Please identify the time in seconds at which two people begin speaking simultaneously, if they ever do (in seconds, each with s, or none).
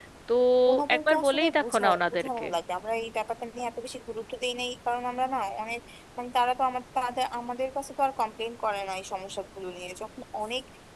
0.9 s